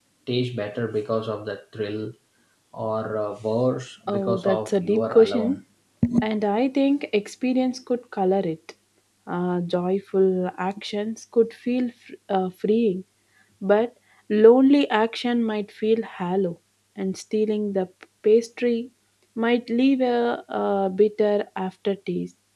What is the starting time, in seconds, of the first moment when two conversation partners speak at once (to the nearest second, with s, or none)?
4 s